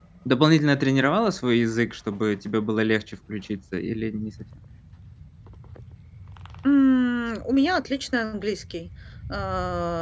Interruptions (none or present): none